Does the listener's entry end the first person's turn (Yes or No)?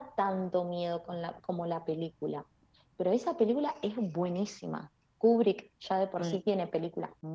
No